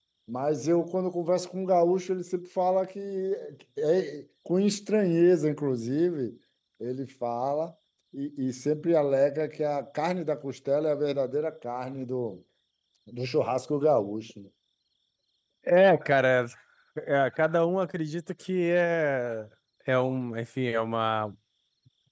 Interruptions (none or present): none